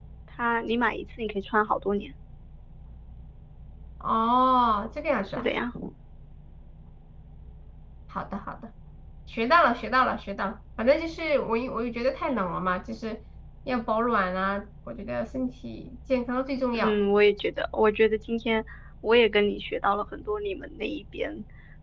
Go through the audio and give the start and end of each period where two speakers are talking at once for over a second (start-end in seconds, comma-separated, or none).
none